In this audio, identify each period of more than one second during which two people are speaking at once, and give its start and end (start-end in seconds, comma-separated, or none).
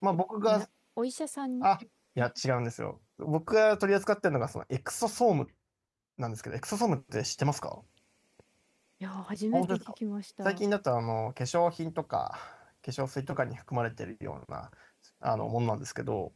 none